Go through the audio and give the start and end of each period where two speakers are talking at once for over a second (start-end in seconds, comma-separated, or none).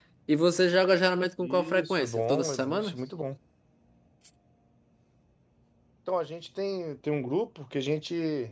1.4-2.9